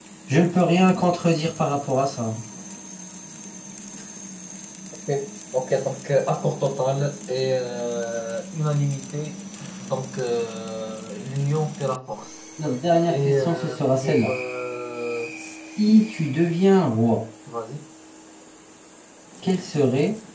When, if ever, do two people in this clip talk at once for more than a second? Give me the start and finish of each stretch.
13.1-14.3

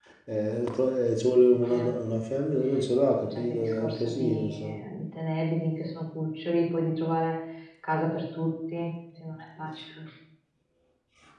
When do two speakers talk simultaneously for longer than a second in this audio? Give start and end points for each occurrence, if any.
3.0-4.8

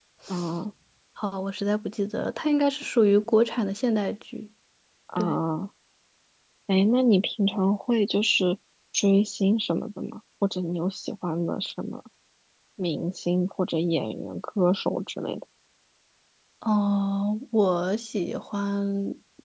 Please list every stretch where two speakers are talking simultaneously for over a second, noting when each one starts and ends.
none

